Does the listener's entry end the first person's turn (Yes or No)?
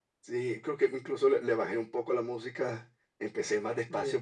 No